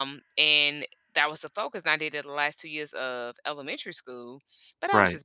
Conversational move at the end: listening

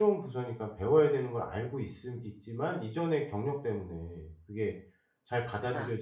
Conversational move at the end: listening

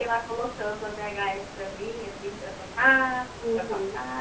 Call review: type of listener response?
taking over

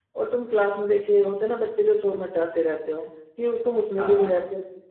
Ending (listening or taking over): listening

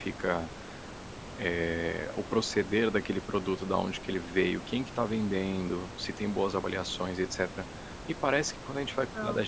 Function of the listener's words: listening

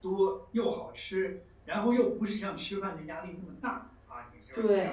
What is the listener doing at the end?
listening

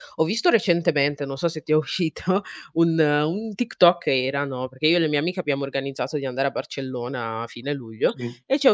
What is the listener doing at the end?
listening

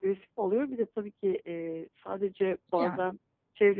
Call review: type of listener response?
listening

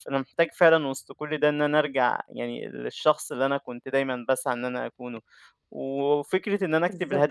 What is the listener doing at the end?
listening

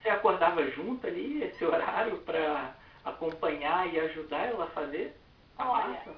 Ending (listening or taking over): taking over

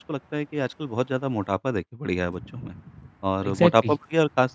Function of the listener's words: listening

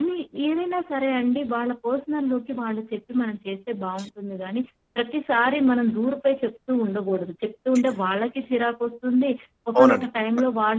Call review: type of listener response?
listening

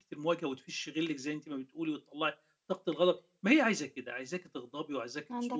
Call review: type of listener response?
listening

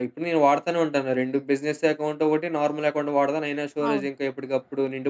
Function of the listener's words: listening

